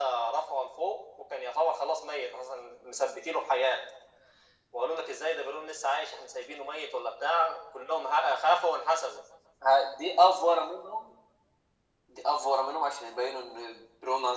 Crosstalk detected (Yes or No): No